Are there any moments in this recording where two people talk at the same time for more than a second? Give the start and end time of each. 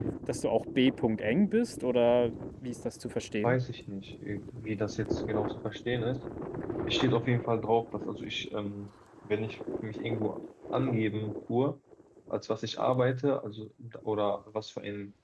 none

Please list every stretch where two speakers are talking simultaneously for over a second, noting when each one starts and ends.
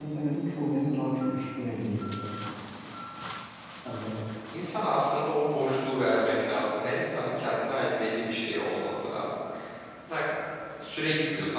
none

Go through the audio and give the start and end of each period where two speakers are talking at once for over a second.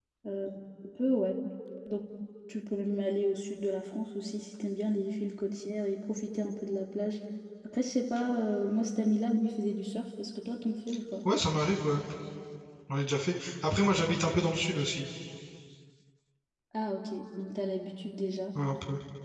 none

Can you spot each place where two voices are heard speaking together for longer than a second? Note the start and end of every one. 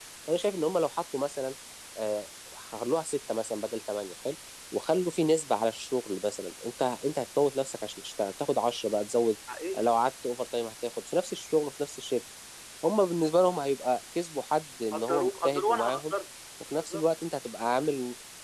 14.9-16.1

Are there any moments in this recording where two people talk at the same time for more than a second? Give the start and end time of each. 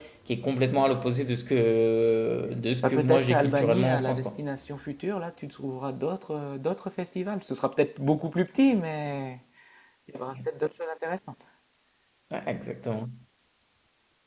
2.8-4.3

